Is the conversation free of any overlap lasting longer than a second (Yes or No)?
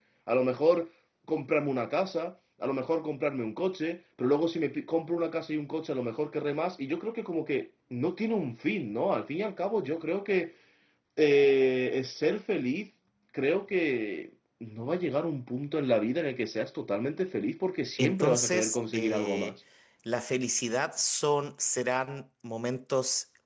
No